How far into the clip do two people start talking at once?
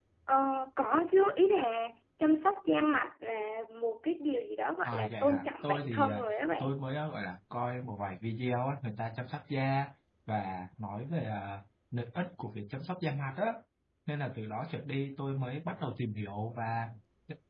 5 s

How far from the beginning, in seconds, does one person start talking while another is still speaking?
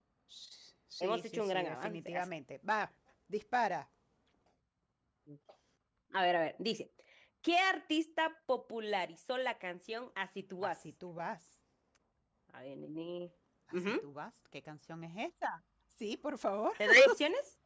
1 s

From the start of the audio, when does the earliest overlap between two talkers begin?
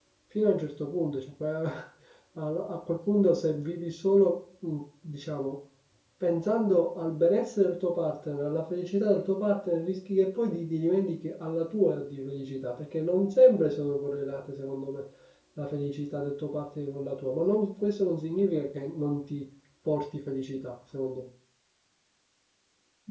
none

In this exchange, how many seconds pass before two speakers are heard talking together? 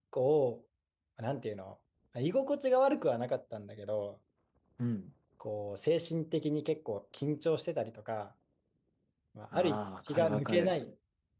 10 s

